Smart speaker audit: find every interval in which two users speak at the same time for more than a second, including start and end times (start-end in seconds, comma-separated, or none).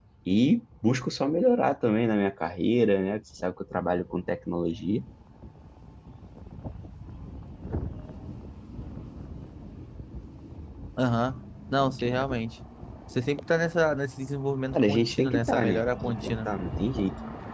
14.7-16.5